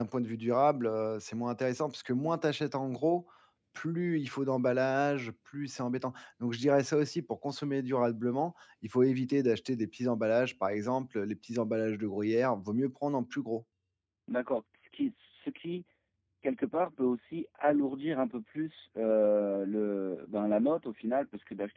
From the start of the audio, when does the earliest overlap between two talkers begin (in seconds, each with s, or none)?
none